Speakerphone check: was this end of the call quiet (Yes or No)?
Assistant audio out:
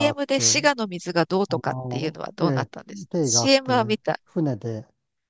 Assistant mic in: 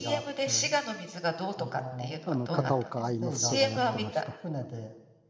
No